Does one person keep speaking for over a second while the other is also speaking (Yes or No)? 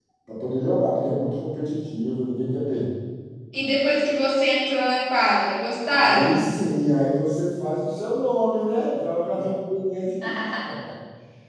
No